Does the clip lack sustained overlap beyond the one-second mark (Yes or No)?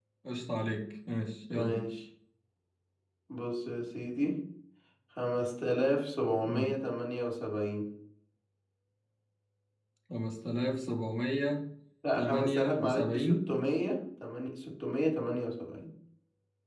No